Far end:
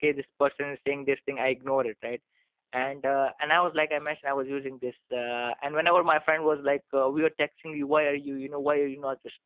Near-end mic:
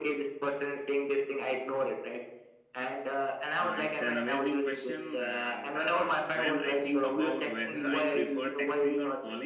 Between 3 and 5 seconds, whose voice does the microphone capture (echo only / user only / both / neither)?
both